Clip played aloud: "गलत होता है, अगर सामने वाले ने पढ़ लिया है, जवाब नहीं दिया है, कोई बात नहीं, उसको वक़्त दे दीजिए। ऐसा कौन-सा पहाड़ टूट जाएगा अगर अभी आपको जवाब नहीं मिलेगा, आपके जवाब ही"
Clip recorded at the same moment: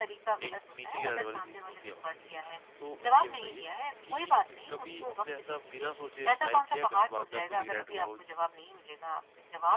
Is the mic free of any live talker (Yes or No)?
No